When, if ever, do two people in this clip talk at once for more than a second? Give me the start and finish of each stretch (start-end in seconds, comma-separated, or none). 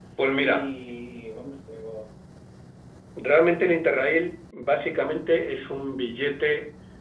none